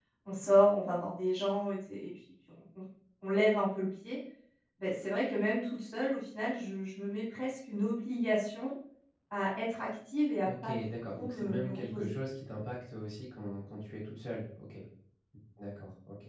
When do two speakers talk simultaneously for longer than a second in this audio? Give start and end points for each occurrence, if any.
10.4-12.2

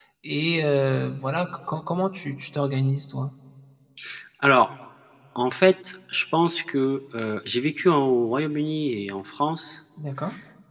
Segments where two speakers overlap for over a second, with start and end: none

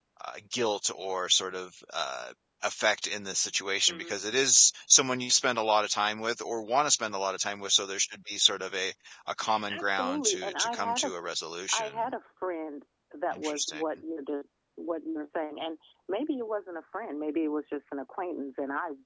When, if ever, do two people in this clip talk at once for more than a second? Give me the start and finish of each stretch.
9.7-11.1

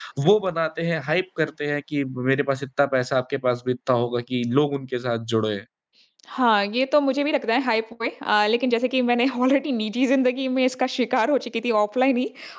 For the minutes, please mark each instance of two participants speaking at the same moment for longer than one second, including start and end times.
none

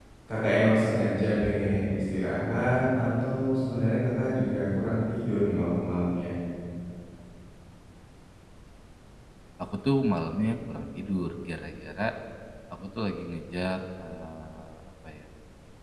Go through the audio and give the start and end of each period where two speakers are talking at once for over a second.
none

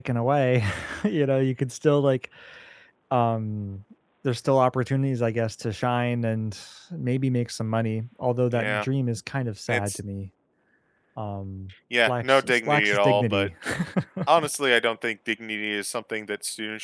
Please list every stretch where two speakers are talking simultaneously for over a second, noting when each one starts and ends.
12.1-13.5

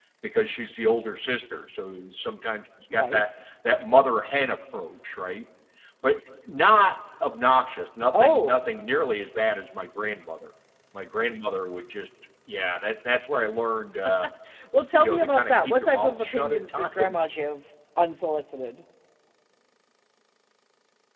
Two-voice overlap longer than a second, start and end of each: 14.9-17.2

